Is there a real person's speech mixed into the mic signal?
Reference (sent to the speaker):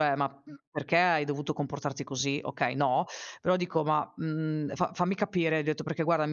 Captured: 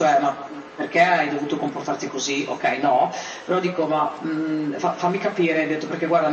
No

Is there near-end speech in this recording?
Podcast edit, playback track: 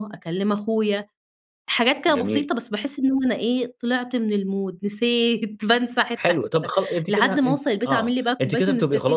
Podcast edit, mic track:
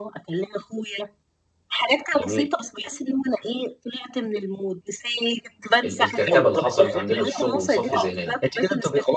Yes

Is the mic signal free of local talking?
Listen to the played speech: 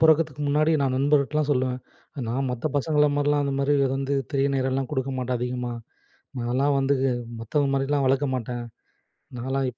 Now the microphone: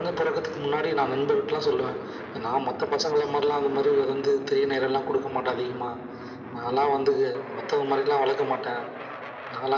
Yes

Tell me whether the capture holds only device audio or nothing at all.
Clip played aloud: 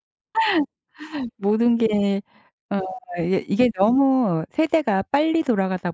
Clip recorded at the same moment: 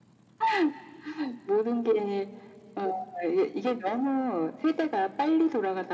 Yes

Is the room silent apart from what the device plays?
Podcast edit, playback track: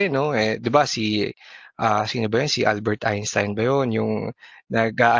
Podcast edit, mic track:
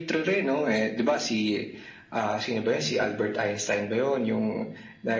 Yes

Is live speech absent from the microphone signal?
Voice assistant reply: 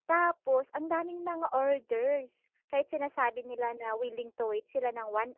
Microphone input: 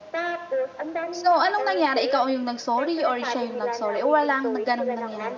No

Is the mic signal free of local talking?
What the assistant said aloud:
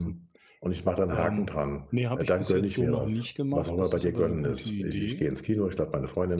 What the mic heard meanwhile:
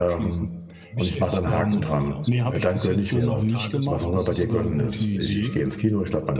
No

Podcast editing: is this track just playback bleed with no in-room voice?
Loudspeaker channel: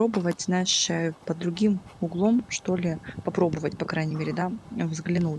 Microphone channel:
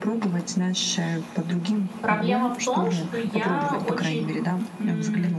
No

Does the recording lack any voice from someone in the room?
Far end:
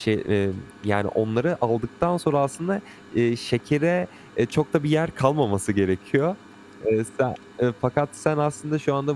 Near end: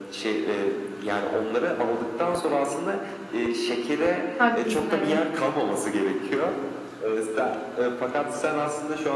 No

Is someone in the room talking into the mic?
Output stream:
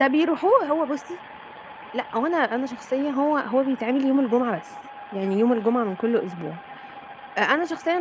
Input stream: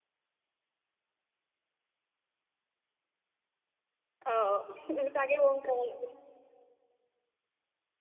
Yes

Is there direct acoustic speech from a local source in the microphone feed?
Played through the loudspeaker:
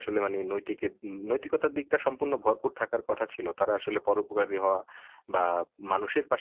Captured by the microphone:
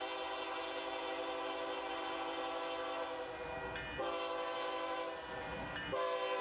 No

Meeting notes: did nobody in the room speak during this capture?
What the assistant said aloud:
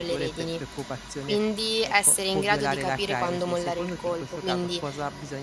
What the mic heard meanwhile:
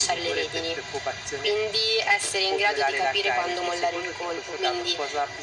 Yes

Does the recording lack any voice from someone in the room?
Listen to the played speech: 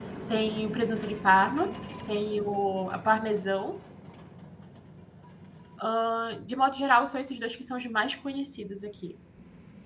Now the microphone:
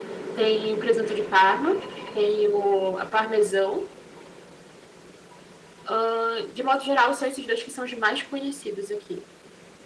Yes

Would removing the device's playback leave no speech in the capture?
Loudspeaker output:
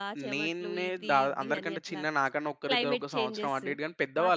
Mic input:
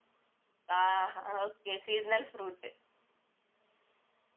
No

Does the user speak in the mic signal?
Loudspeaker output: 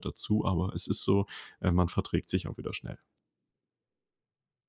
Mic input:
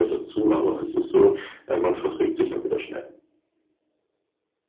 No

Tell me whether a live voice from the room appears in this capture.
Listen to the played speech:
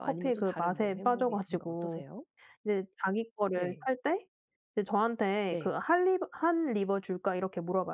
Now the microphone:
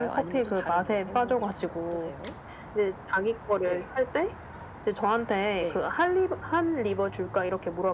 No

